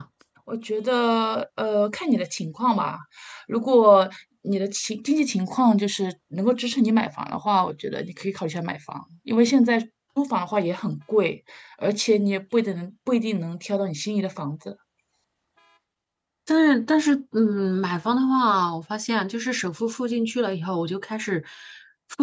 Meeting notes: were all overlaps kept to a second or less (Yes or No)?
Yes